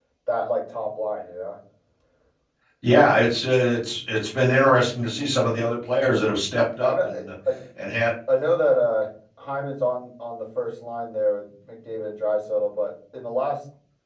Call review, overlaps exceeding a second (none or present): none